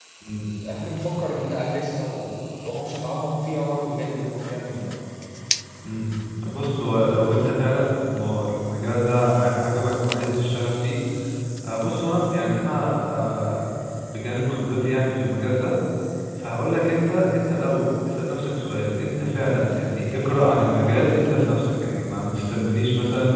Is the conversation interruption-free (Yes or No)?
Yes